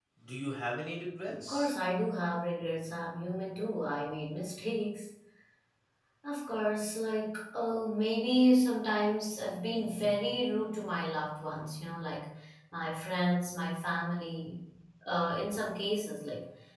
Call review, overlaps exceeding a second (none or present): none